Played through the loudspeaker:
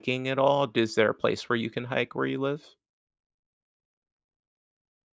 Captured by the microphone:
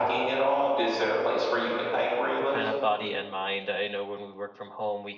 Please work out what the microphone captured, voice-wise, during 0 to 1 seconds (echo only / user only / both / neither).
echo only